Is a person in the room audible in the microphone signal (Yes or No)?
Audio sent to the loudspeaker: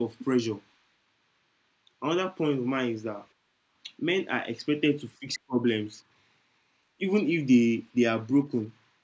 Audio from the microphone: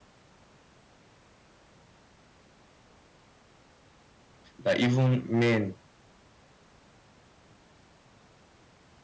Yes